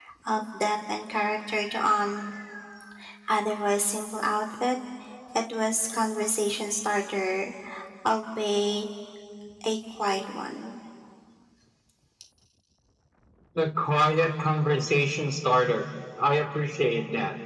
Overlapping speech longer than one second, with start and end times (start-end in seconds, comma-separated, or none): none